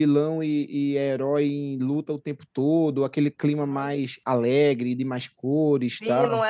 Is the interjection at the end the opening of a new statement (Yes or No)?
Yes